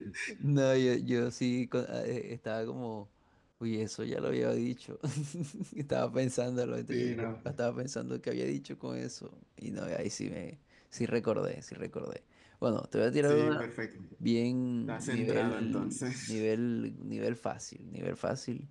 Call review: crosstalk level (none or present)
present